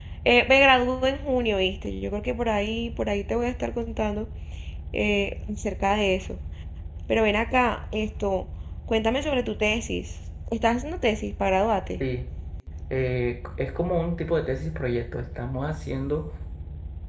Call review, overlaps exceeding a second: none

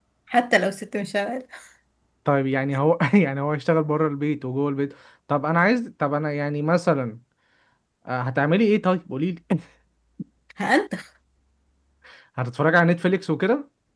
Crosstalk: none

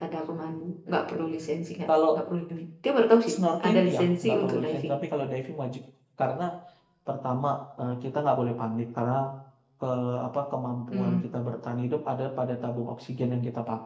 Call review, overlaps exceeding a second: present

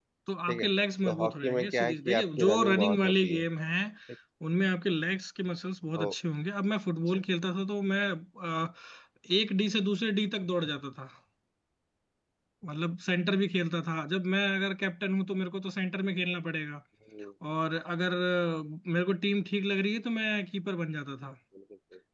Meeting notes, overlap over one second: present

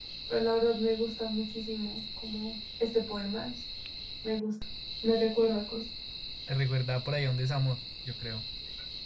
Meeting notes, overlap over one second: none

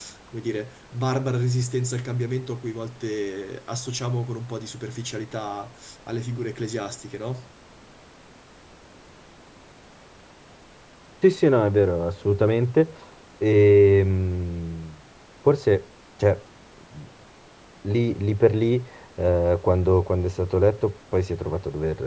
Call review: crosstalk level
none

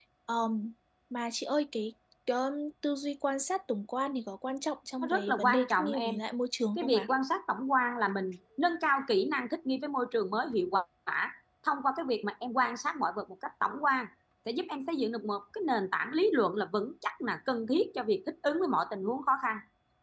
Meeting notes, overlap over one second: present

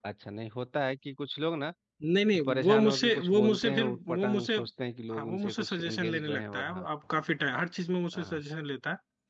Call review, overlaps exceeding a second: present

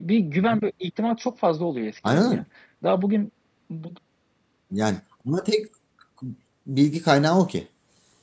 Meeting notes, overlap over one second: none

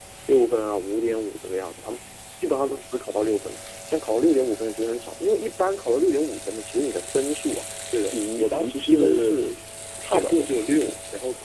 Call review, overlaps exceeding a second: present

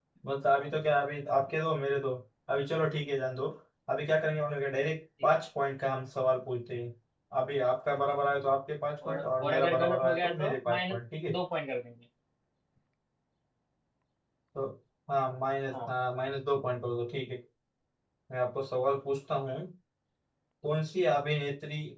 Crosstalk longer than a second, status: present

